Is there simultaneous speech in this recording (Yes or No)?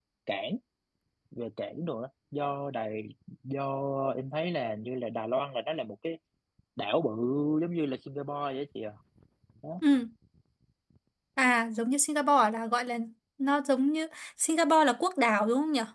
No